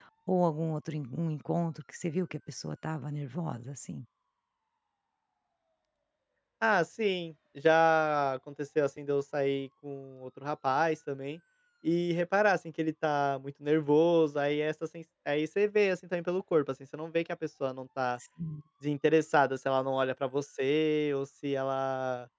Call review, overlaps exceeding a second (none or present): none